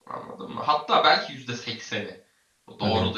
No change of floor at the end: Yes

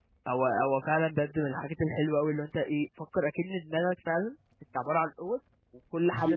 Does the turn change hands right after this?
No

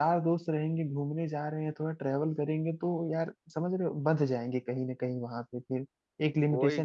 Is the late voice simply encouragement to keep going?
No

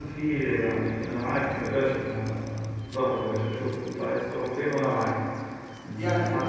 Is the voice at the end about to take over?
No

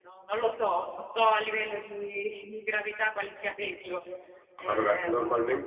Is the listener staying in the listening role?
No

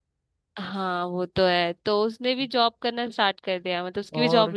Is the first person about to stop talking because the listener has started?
Yes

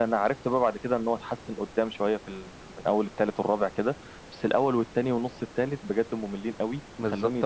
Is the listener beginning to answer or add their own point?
Yes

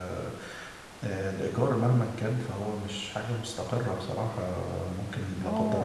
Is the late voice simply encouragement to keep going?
Yes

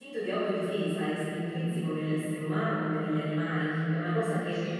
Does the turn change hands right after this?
No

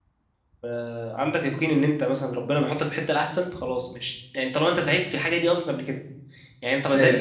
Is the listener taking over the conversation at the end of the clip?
No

